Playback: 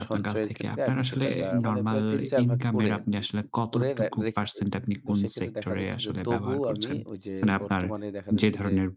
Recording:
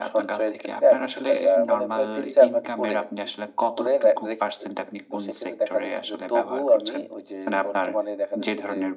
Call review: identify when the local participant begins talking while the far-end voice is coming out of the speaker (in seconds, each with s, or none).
none